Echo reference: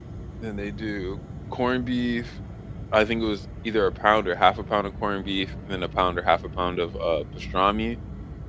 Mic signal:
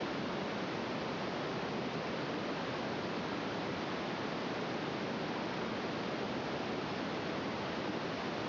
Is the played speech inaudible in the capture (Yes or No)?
Yes